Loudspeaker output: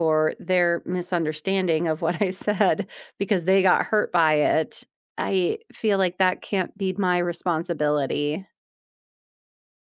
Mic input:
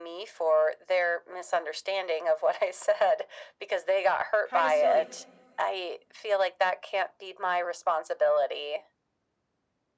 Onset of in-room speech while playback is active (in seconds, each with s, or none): 4.4 s